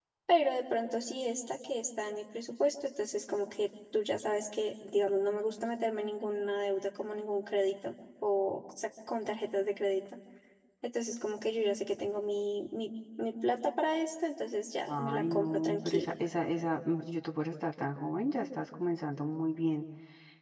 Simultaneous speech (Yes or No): Yes